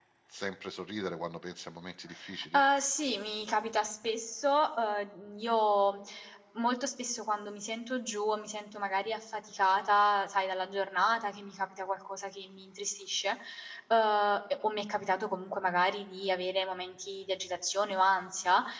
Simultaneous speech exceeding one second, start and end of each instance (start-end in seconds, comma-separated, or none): none